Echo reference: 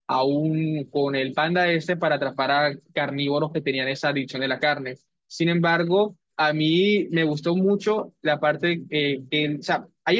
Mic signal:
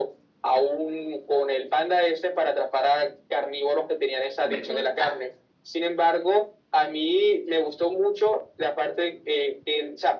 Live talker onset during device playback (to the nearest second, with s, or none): 4 s